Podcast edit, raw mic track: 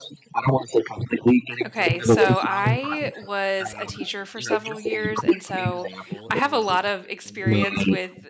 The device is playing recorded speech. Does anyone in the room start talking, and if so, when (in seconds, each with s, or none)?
1.6 s